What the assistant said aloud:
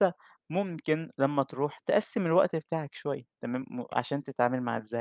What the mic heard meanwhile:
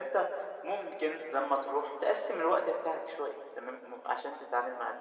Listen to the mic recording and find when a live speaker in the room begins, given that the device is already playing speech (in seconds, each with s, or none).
none